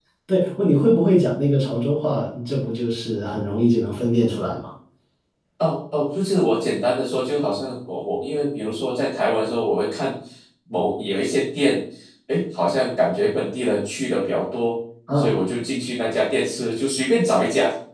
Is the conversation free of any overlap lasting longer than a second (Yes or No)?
Yes